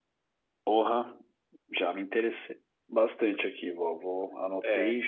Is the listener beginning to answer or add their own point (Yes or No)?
No